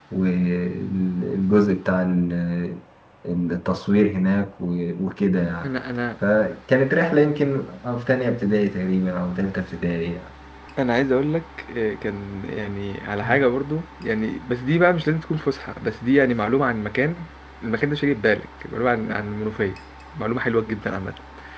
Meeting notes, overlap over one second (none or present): none